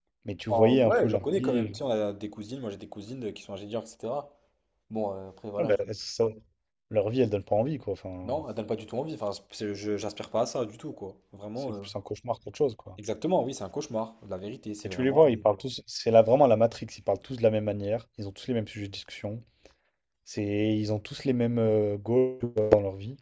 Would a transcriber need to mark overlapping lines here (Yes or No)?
Yes